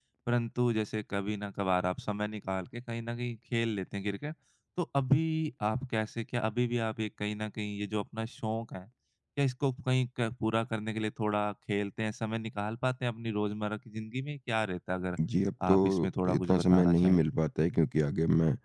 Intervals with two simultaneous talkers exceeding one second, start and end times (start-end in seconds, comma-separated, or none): 15.7-17.2